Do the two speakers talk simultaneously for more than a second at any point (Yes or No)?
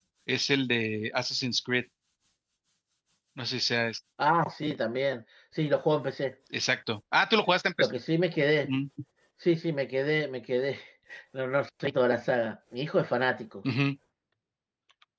No